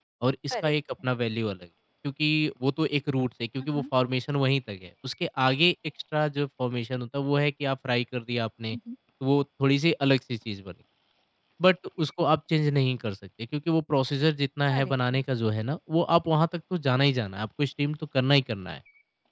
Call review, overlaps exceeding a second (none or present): none